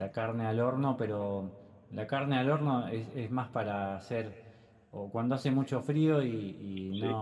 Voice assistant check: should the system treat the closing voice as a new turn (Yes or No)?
No